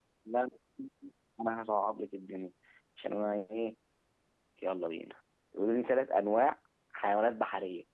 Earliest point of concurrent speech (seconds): none

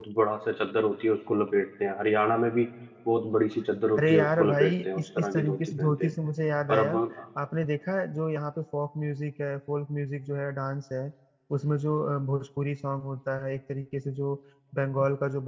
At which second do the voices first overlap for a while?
4.0 s

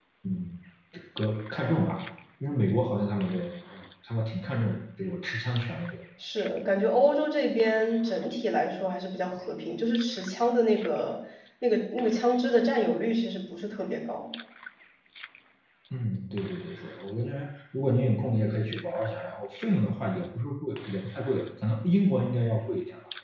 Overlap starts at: none

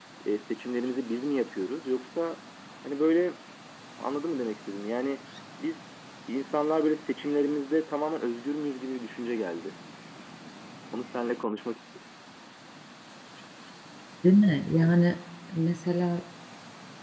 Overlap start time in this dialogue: none

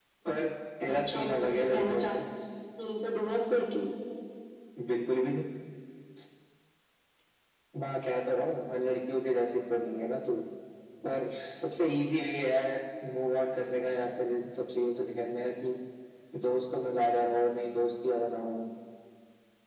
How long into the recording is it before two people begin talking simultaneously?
0.8 s

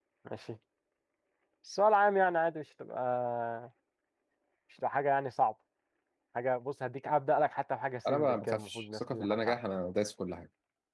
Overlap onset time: 8.0 s

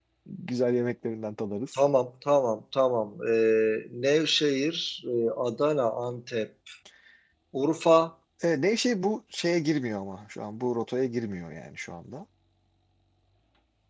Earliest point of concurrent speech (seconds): none

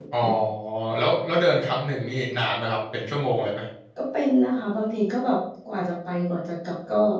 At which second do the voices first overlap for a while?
none

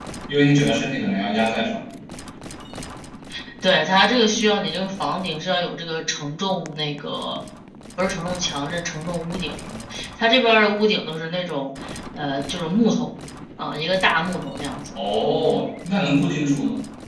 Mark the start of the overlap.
none

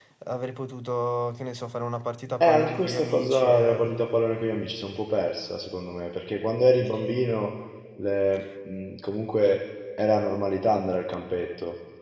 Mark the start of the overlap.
2.4 s

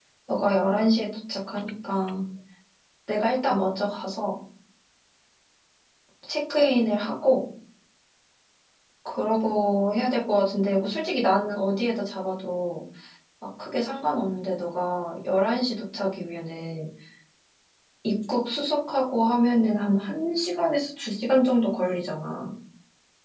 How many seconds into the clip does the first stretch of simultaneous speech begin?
none

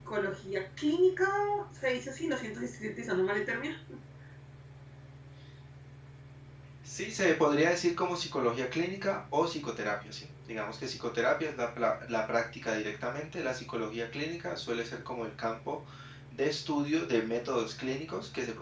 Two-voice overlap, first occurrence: none

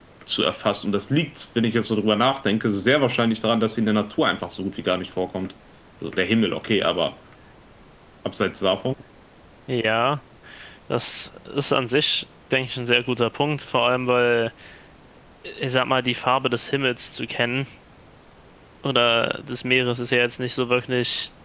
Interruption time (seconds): none

